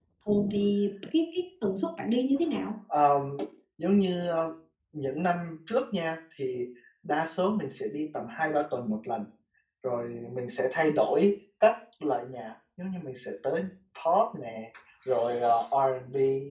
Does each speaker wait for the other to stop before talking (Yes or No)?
Yes